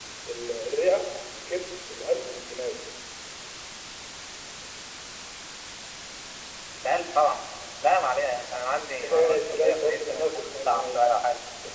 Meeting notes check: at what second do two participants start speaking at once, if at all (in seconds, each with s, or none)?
9.0 s